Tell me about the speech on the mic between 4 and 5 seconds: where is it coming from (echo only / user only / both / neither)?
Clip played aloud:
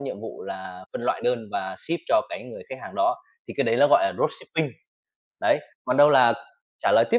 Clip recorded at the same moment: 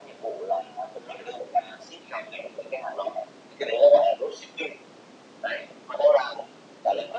echo only